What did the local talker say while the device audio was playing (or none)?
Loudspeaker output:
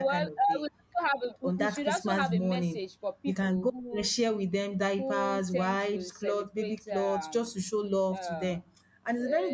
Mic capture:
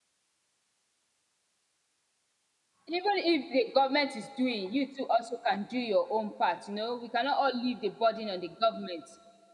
Even if the government is doing, you too also can do your own part, you know, we cannot all leave the burden on the government.